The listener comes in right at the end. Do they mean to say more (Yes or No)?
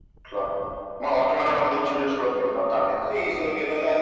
Yes